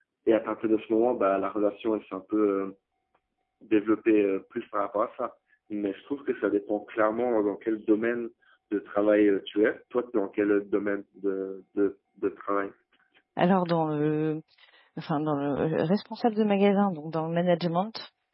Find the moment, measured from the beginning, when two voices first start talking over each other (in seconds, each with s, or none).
none